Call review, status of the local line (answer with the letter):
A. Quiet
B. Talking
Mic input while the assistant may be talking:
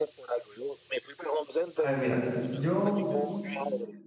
B